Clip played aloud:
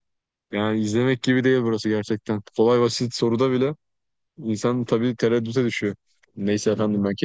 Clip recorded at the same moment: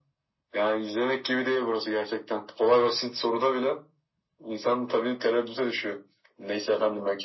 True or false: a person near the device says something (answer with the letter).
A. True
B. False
B